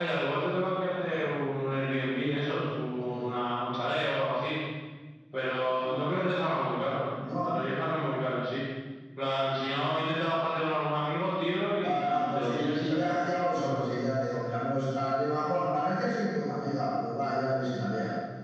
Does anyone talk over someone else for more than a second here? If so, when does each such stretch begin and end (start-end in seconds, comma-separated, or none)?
11.8-13.2